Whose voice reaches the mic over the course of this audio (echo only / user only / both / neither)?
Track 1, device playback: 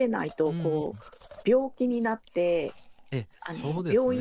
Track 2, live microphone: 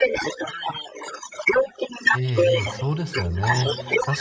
both